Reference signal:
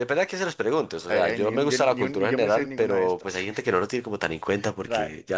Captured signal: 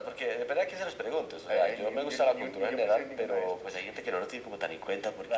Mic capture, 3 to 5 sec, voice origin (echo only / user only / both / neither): echo only